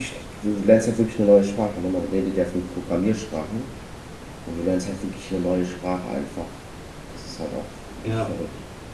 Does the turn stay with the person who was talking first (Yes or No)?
No